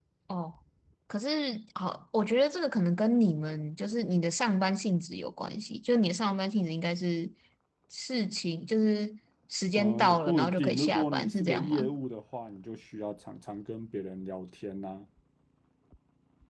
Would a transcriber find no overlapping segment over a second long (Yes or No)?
No